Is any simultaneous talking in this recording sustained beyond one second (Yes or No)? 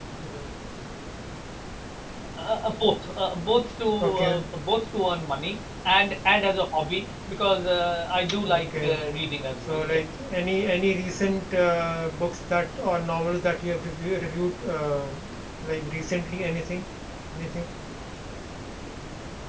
No